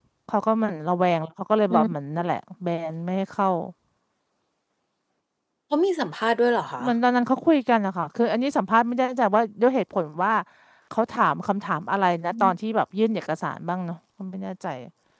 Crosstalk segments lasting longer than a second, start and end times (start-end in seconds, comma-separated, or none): none